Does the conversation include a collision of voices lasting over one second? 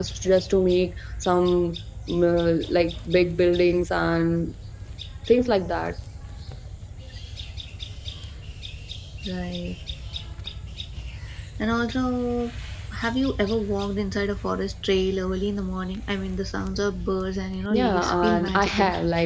Yes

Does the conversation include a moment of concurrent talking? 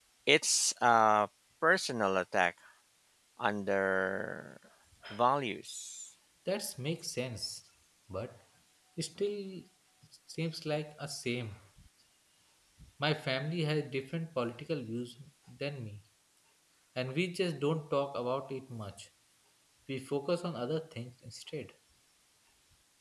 No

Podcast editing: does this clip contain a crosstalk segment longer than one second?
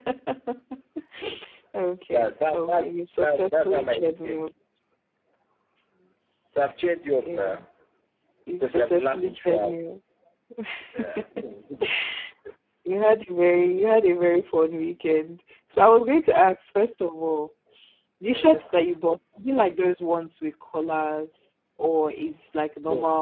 Yes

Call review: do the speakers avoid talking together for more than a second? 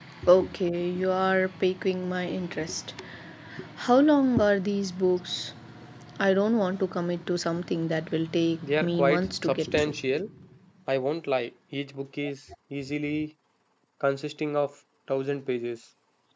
No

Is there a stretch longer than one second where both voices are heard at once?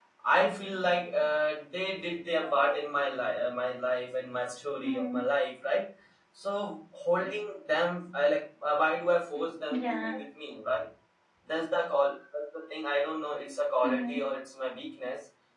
No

